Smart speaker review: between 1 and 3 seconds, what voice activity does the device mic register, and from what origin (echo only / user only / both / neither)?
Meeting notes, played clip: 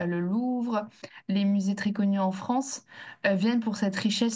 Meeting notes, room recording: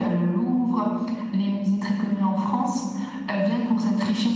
echo only